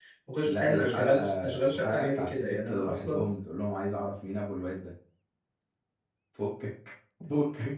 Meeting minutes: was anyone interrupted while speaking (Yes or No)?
Yes